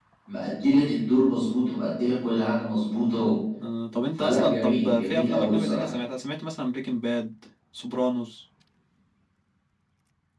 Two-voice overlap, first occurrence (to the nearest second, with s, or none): 4 s